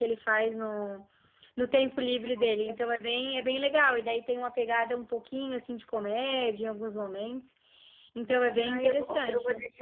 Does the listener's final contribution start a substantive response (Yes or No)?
Yes